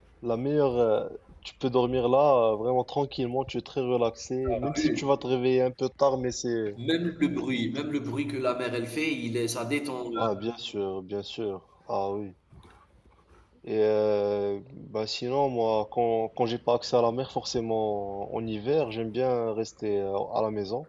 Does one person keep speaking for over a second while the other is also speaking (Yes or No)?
No